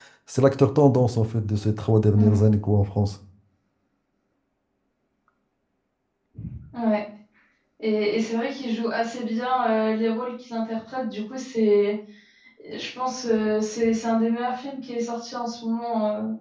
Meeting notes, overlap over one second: none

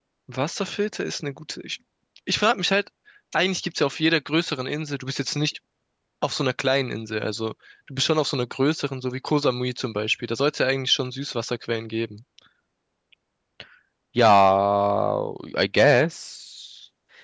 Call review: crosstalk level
none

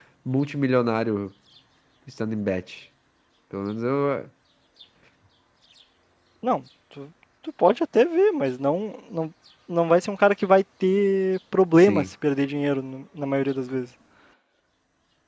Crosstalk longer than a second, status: none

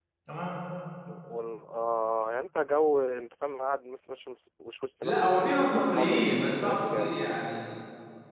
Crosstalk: present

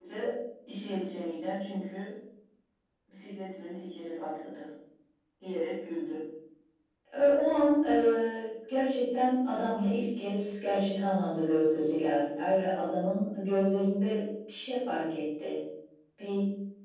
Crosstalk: none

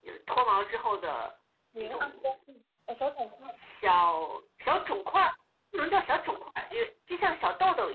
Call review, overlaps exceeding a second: none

